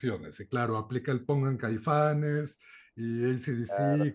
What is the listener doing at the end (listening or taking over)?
listening